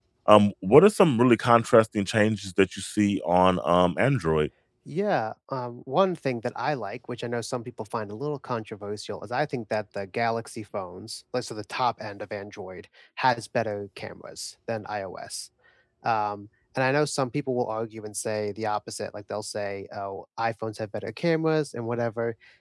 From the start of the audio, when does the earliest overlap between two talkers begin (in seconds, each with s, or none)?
none